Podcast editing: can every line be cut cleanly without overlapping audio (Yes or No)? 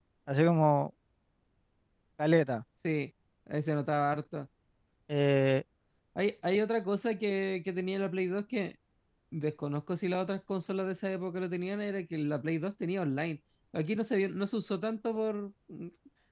Yes